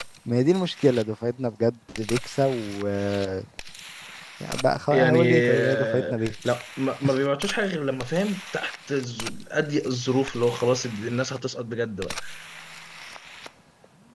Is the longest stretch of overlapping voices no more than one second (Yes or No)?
No